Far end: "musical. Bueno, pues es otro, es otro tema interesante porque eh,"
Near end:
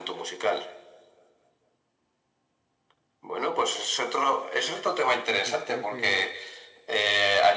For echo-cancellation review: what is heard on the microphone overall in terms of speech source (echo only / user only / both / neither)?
both